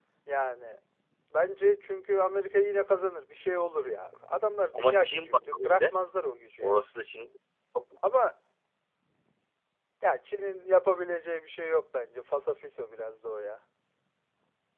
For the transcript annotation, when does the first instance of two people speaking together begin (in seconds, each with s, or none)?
4.7 s